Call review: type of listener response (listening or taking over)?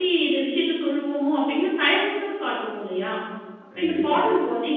listening